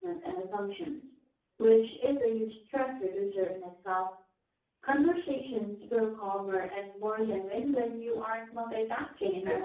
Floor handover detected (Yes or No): Yes